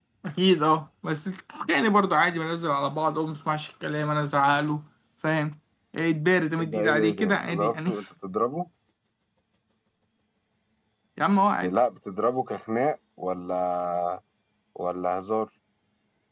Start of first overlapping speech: 6.6 s

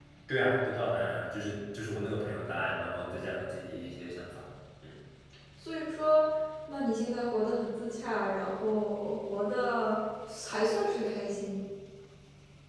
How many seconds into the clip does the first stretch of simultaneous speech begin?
none

